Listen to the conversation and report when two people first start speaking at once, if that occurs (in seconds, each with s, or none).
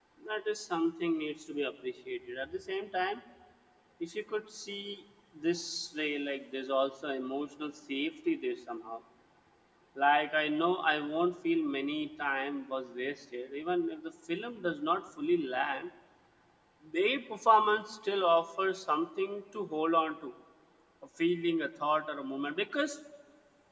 none